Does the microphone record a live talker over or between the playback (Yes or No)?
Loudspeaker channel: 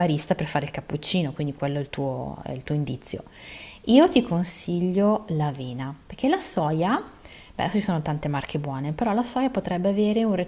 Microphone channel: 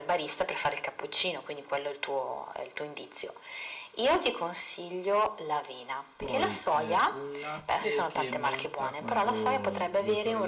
Yes